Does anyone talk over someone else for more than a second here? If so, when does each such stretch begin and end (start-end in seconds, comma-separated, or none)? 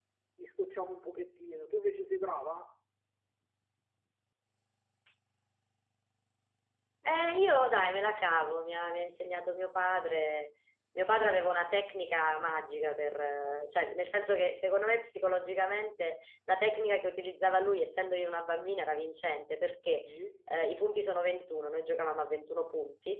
none